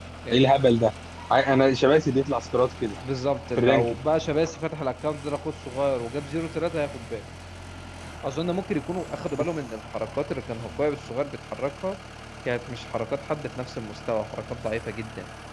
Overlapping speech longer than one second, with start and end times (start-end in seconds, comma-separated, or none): none